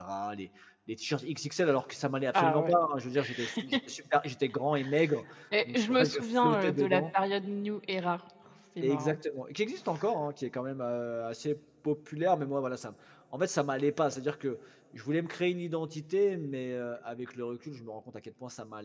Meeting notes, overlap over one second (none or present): present